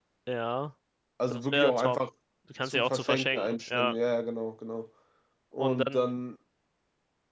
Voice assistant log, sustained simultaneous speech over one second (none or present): present